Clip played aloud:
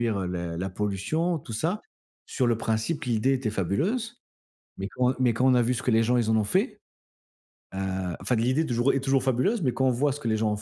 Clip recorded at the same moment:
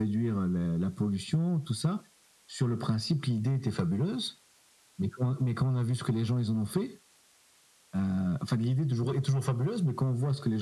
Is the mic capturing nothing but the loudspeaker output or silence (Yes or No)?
Yes